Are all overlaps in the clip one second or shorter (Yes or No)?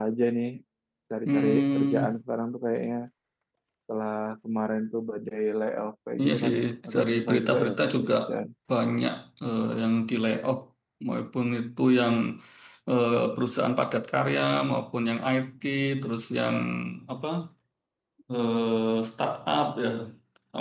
No